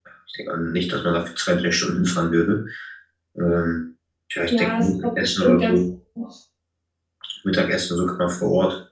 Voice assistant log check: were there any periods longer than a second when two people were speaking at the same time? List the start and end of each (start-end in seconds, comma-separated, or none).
4.5-5.8